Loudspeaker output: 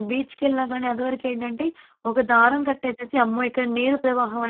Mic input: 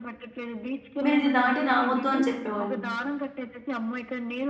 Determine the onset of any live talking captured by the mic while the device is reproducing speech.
1.0 s

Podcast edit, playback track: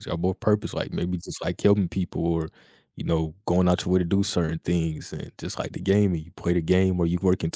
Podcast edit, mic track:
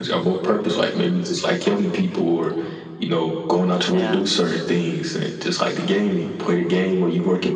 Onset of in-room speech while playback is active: 3.9 s

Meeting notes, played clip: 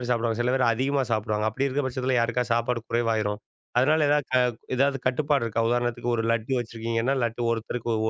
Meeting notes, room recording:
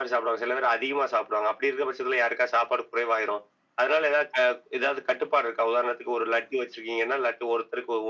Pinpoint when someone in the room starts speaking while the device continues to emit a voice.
none

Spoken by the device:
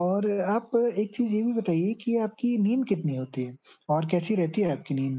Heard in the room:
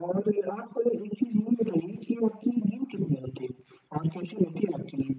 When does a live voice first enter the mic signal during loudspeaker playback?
none

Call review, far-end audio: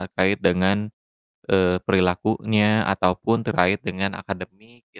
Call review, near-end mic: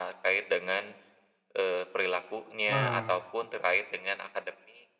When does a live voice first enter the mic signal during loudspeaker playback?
2.7 s

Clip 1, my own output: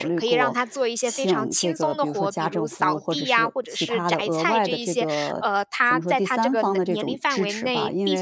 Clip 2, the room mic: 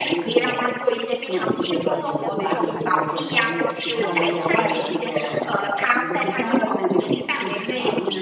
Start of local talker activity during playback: 1.8 s

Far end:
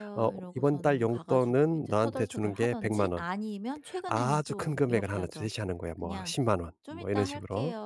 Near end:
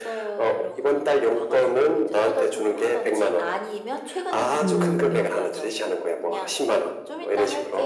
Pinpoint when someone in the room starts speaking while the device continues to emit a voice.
4.6 s

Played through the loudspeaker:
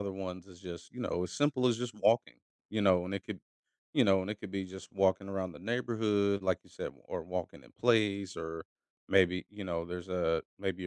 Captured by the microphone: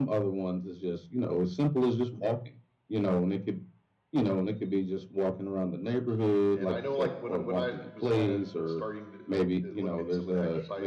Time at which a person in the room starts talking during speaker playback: 5.8 s

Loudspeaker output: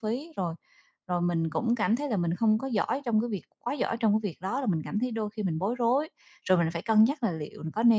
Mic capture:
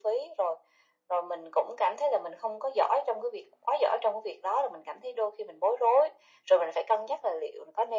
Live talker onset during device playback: none

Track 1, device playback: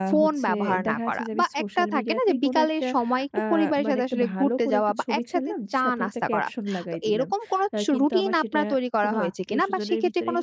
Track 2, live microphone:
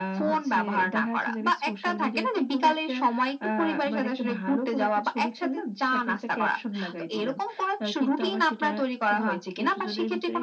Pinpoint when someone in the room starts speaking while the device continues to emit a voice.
none

